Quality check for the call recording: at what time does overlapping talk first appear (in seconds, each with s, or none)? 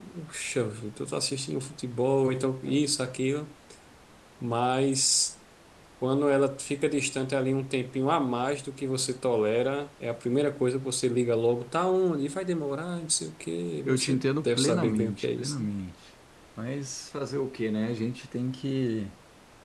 13.8 s